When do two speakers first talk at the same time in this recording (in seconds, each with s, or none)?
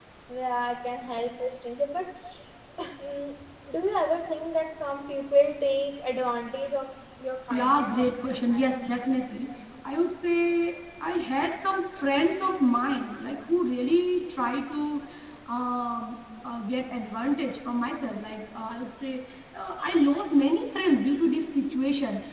7.5 s